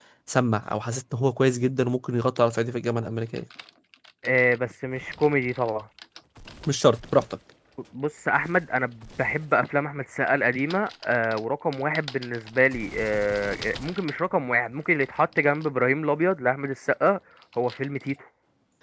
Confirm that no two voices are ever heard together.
Yes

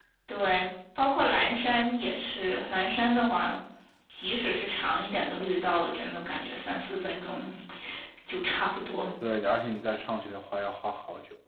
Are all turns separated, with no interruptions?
Yes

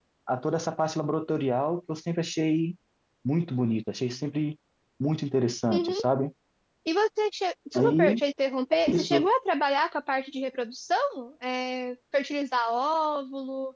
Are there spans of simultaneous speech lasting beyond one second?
No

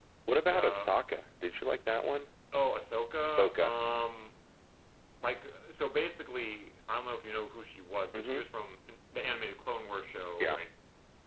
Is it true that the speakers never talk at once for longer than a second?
Yes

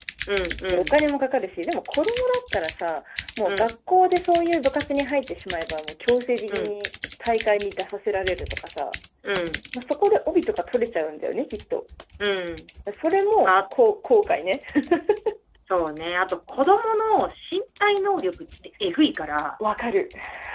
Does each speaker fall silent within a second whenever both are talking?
Yes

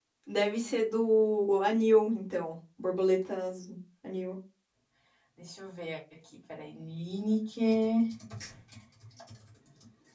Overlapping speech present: No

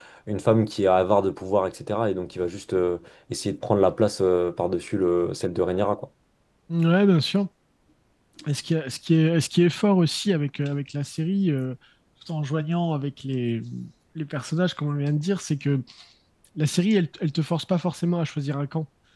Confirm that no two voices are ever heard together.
Yes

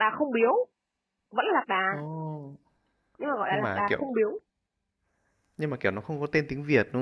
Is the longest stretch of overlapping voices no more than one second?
Yes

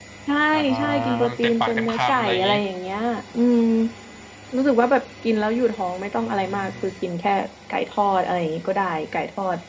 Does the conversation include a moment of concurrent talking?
Yes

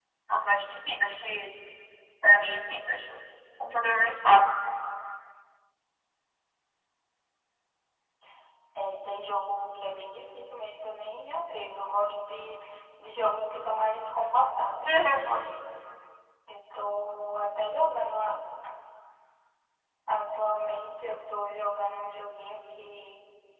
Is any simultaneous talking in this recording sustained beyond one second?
No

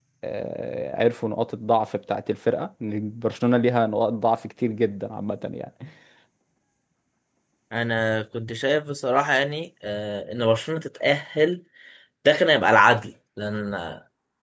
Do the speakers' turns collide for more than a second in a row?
No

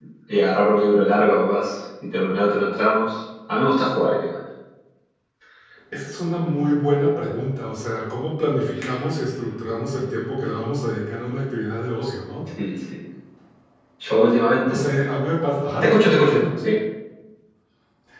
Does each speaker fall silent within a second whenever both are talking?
Yes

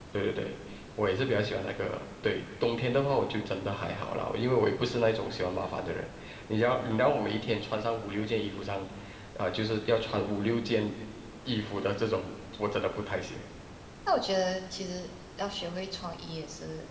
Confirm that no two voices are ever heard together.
Yes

